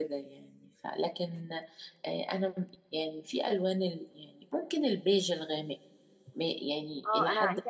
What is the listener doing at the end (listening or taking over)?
taking over